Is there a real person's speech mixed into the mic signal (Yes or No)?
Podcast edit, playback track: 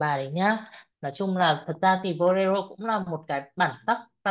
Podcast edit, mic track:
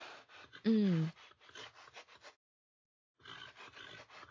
Yes